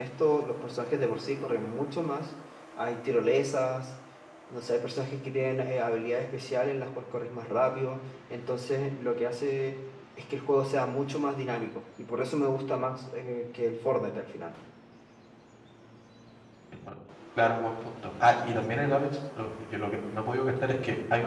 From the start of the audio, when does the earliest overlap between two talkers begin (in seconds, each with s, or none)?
none